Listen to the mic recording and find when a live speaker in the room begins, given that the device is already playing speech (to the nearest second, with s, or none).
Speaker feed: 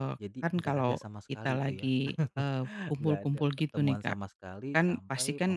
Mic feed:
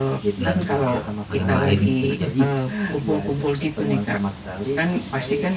0 s